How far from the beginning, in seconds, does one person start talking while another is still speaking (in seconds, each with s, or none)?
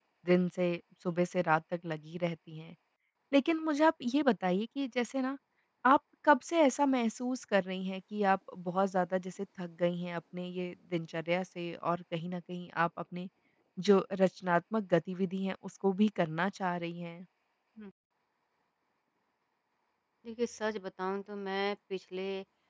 none